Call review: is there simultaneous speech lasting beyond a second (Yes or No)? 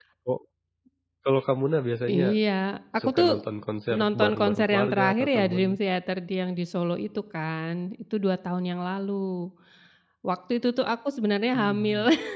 Yes